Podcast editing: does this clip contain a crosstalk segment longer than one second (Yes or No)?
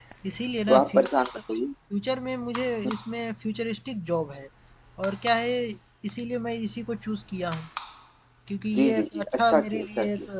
Yes